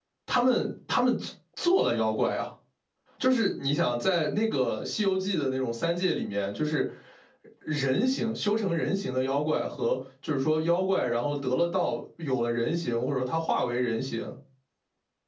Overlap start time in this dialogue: none

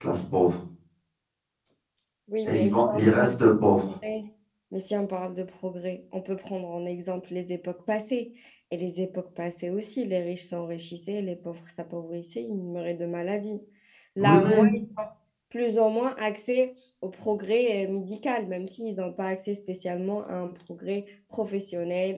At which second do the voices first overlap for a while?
2 s

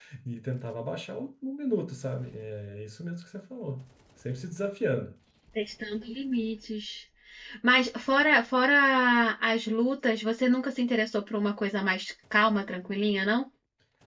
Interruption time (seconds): none

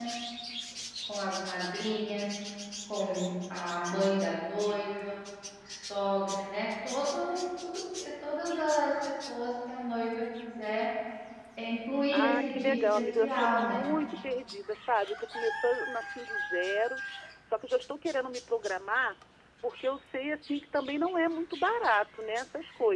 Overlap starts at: 12 s

